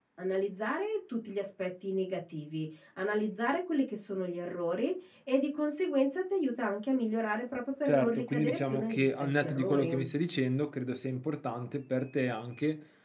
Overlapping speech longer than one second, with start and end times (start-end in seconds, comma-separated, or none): 7.9-9.9